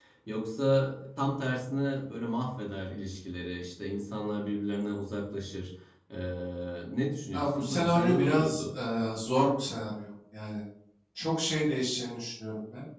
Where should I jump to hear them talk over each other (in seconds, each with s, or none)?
7.3 s